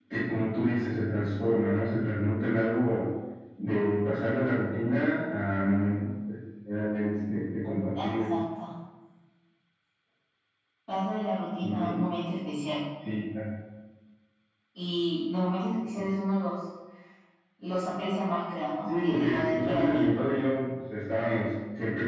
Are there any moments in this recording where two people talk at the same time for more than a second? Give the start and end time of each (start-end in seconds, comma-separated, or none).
18.9-20.1